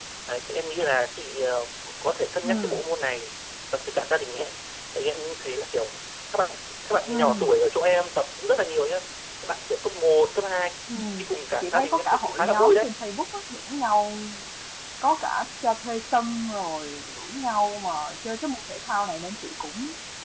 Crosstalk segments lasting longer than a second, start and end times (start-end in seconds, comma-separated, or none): 11.6-12.8